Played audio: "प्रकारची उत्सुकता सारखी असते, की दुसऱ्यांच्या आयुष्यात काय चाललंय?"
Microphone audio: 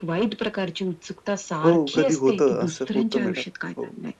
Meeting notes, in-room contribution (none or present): present